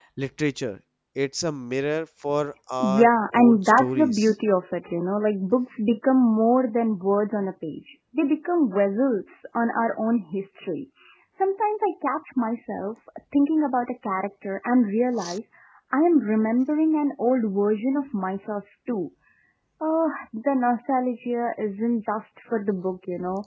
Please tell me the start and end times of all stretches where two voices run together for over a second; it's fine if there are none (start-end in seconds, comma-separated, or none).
2.8-4.2